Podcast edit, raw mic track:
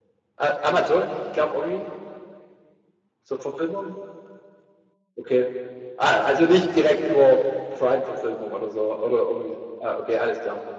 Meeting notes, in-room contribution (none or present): none